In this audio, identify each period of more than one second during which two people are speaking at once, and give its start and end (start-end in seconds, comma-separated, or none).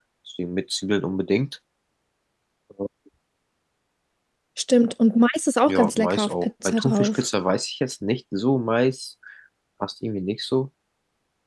5.7-7.2